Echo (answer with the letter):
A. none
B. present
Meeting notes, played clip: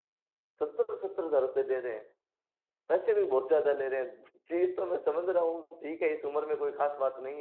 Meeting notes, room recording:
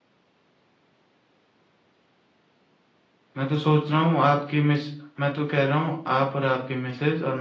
A